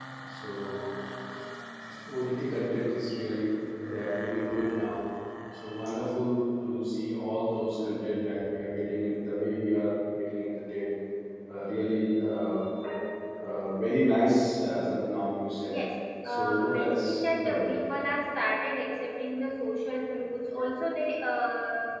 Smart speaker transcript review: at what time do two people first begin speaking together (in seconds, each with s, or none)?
16.2 s